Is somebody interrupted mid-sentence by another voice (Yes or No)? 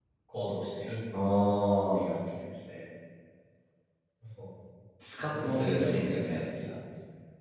Yes